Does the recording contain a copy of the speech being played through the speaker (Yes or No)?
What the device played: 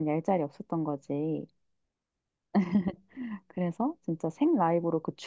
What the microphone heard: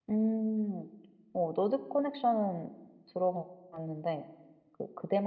No